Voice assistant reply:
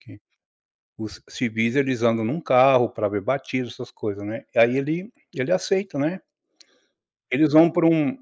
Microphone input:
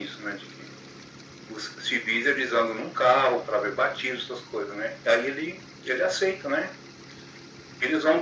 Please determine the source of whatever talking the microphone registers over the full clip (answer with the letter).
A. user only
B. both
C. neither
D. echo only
D